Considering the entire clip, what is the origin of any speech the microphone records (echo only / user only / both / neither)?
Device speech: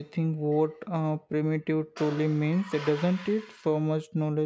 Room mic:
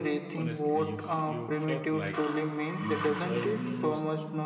both